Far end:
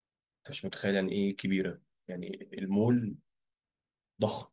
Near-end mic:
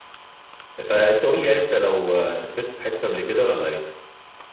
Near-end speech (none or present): present